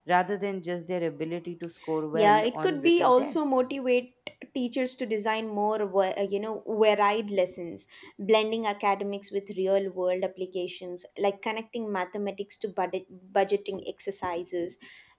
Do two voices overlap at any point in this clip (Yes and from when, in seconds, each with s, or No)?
Yes, from 2.1 s